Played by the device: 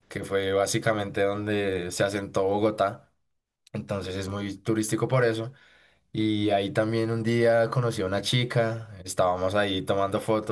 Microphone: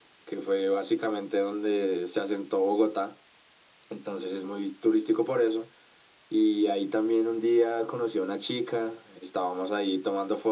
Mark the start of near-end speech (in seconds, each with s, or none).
none